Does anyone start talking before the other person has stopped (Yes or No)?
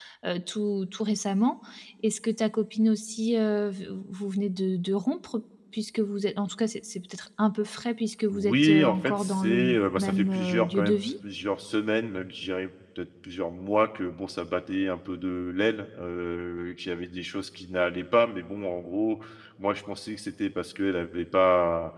Yes